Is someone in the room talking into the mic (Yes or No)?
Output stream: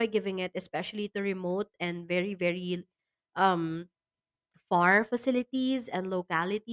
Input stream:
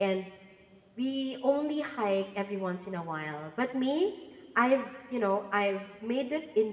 Yes